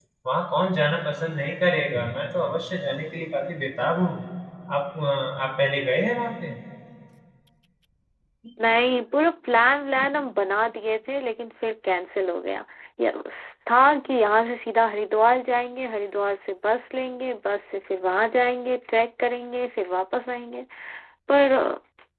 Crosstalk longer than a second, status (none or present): none